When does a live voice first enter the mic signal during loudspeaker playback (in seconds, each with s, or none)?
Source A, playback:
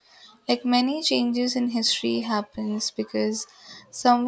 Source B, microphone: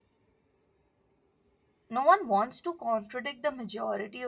1.9 s